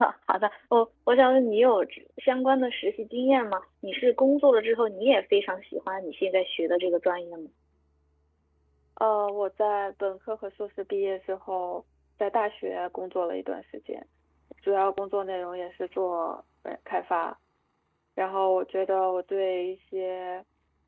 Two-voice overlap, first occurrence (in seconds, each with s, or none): none